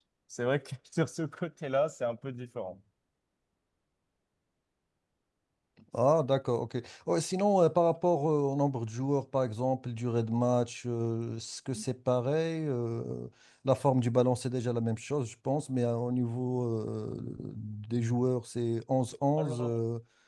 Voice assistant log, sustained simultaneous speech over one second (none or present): none